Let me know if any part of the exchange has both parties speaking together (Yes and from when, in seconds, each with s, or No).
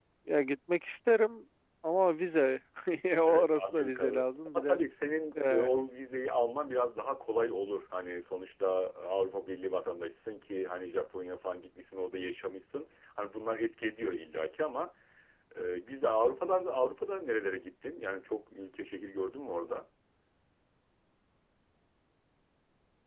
Yes, from 3.2 s